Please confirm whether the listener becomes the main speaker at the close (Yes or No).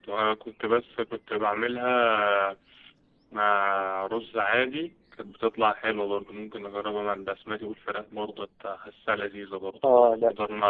Yes